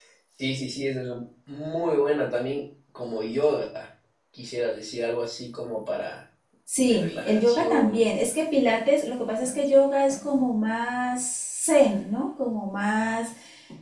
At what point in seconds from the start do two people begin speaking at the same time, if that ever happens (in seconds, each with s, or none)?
6.8 s